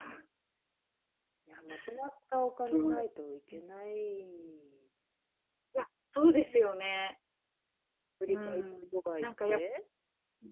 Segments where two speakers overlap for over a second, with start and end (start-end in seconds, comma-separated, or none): 8.3-9.6